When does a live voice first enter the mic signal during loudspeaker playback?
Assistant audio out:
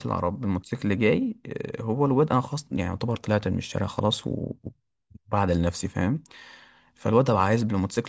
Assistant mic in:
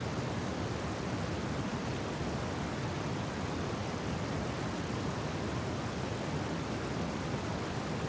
none

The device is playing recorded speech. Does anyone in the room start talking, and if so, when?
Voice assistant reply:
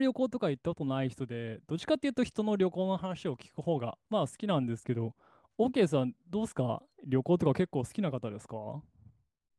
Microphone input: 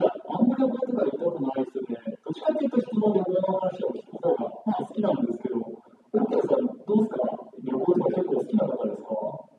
none

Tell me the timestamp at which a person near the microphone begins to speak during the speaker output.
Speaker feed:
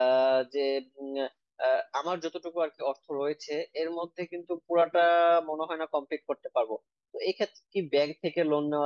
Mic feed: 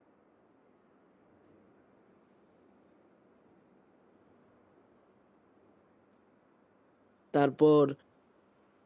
7.3 s

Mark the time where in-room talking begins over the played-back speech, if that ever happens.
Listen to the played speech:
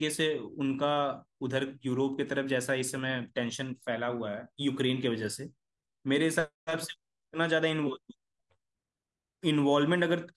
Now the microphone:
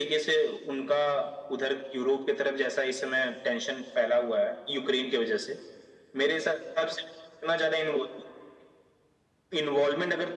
none

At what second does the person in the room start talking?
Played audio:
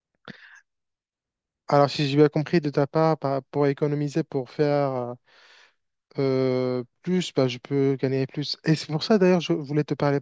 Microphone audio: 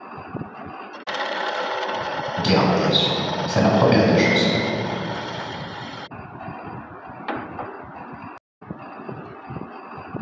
2.4 s

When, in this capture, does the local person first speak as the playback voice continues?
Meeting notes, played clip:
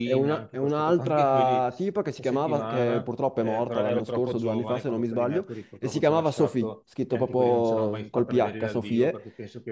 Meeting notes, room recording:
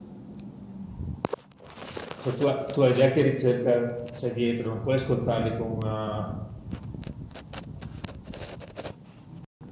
2.1 s

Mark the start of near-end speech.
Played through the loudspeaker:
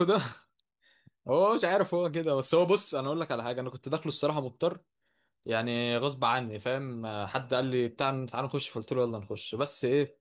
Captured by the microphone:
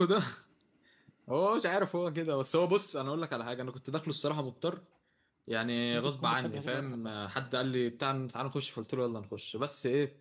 5.9 s

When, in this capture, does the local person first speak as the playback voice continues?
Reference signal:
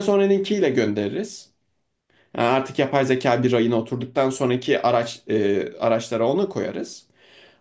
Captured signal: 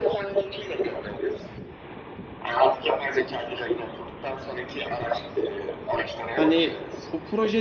6.3 s

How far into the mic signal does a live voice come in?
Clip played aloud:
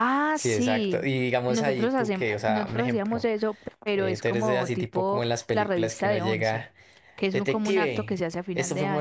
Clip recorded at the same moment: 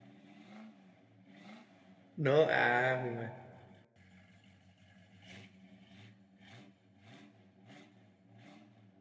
2.2 s

